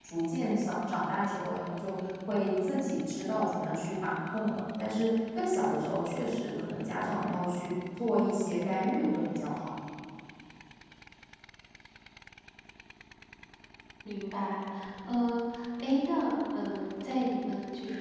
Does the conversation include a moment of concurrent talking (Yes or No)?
No